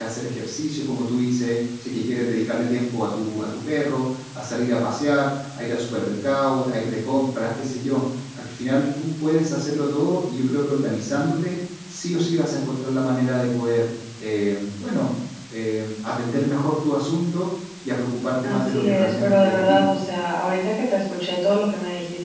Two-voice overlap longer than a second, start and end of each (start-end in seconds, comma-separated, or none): 18.4-19.9